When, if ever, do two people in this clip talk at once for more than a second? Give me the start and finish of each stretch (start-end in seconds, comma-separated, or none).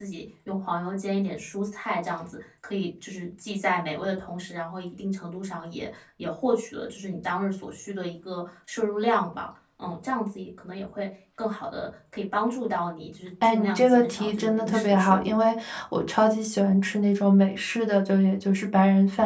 13.4-15.3